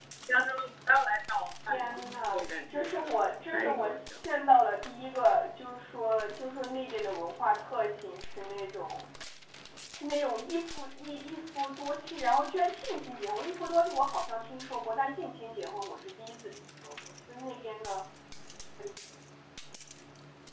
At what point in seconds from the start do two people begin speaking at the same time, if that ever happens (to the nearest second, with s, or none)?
2 s